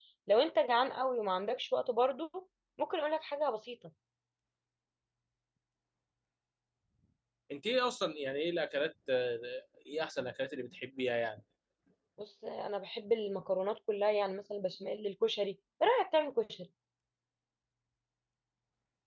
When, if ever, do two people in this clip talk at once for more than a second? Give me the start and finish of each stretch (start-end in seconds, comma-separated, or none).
none